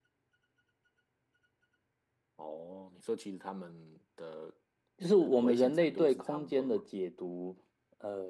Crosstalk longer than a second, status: present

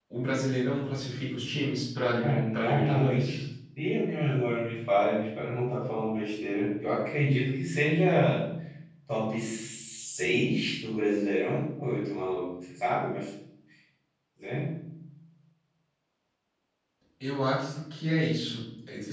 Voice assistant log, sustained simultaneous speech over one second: present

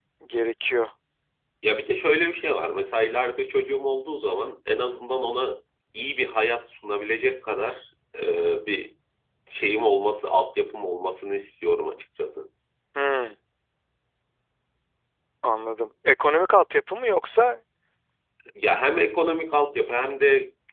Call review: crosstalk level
none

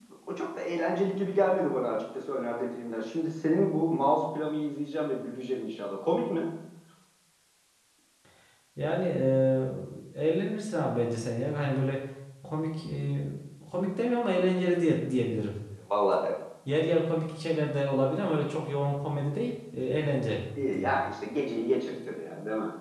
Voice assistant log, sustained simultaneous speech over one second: none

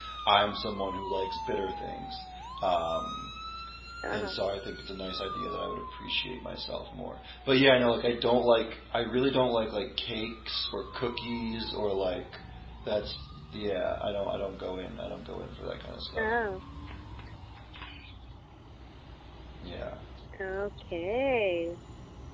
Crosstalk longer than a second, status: none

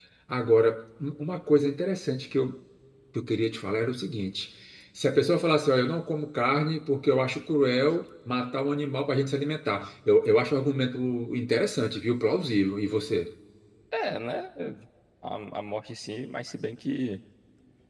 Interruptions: none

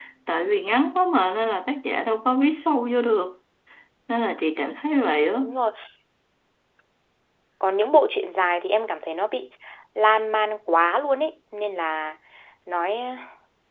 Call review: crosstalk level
none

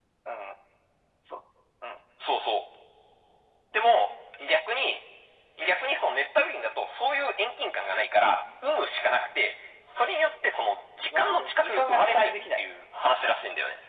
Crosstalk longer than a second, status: present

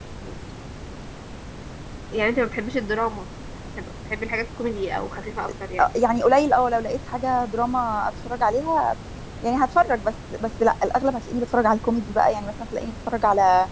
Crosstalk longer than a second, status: none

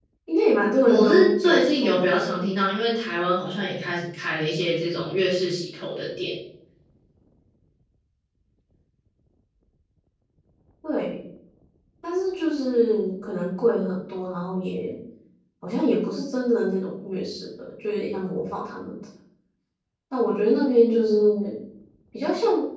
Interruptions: present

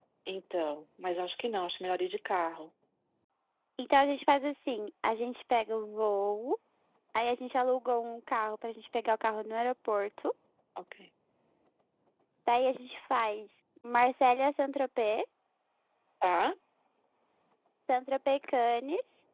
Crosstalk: none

